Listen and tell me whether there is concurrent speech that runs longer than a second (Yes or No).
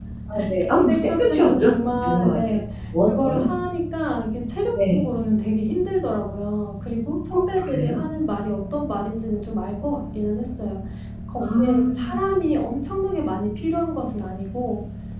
Yes